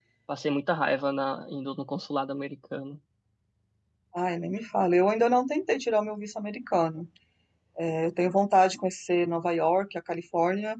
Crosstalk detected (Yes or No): No